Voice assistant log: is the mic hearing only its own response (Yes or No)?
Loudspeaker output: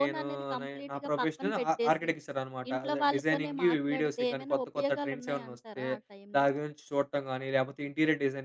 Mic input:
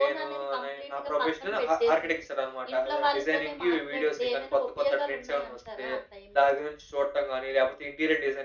Yes